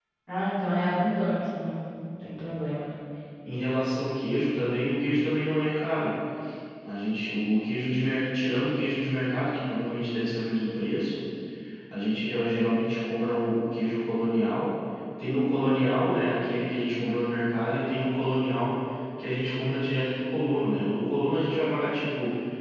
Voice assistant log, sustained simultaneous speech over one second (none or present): none